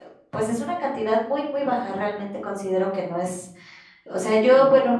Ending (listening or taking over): listening